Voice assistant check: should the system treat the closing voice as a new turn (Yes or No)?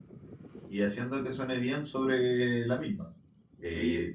No